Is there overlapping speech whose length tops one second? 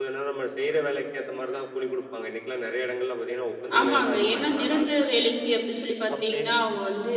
Yes, from 3.8 s

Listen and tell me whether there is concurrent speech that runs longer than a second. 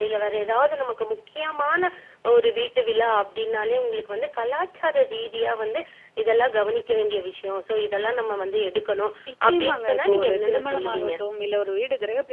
Yes, from 9.3 s

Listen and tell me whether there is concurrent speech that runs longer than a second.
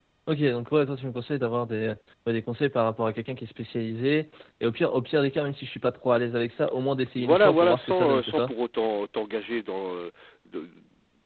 Yes, from 7.2 s

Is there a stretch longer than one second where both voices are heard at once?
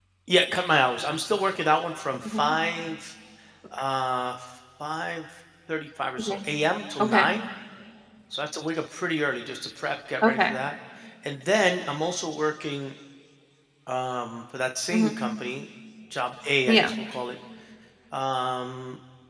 No

